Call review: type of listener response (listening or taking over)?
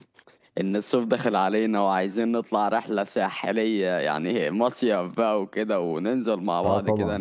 listening